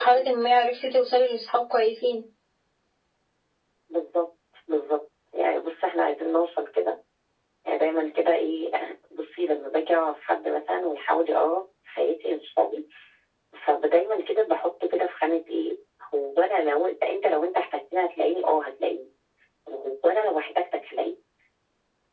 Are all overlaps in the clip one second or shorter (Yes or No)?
Yes